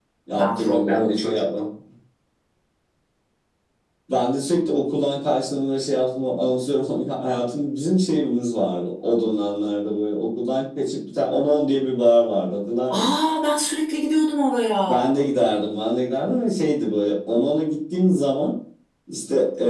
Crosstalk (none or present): present